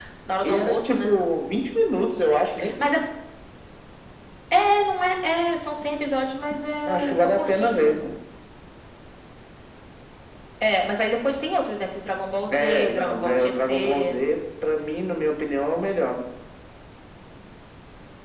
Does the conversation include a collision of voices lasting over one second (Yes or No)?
Yes